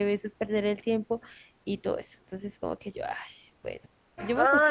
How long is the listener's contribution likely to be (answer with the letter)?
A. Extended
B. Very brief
A